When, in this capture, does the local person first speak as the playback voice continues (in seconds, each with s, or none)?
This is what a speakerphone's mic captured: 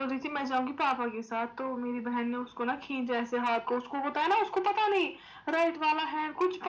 none